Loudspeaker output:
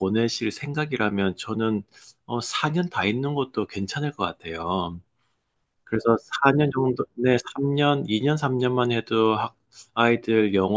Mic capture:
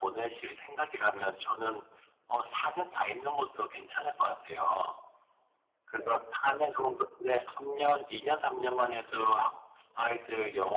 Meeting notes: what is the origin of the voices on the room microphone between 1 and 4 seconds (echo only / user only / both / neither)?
echo only